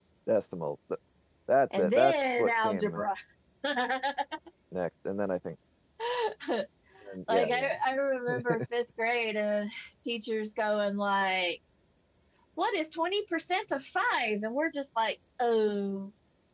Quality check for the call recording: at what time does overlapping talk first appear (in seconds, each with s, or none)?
1.8 s